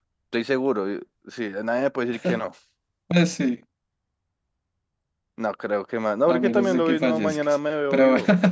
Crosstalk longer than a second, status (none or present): present